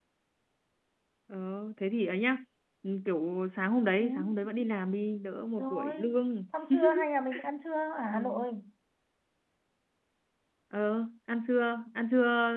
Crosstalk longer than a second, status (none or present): none